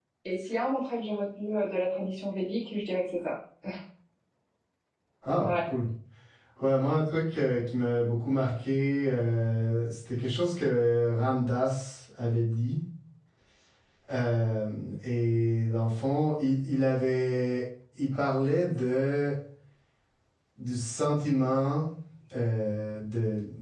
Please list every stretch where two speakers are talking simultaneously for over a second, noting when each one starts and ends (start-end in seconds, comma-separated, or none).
none